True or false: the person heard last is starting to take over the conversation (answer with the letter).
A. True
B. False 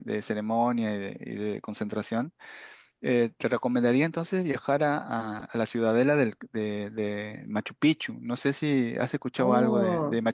A